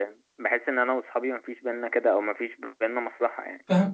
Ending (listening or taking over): taking over